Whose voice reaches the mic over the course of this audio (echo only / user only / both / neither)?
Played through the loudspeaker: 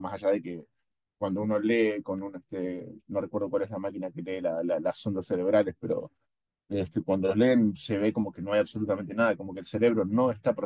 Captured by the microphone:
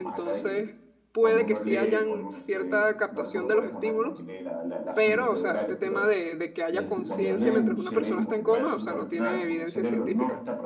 both